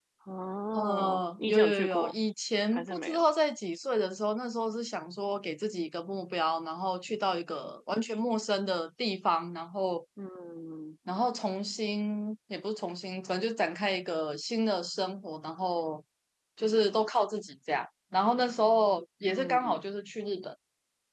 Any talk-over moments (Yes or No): Yes